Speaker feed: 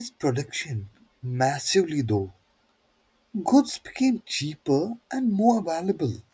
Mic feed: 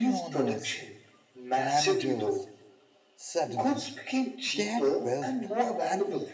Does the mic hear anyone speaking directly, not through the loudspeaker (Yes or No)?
Yes